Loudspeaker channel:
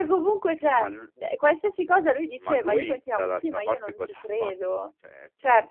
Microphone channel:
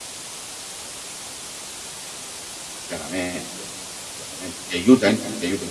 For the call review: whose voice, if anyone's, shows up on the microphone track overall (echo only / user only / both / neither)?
user only